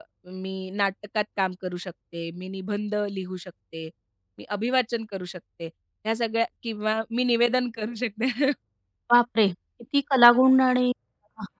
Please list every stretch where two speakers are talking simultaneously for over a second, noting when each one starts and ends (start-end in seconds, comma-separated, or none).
none